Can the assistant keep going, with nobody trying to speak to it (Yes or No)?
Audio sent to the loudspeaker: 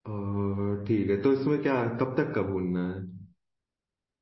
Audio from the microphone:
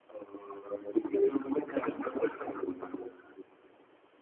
Yes